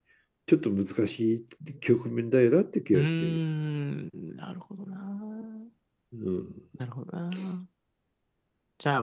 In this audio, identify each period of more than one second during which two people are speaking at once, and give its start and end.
none

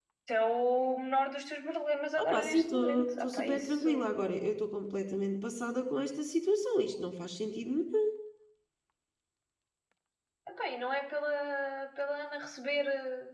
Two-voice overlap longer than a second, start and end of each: 2.2-3.9

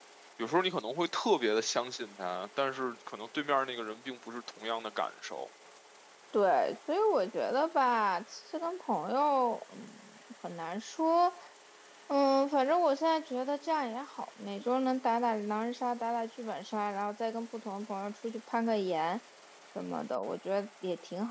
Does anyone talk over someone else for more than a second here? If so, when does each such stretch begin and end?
none

